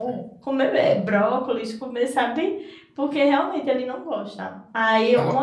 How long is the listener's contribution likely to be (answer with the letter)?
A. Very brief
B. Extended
A